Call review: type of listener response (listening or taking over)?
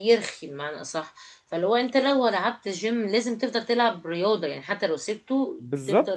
taking over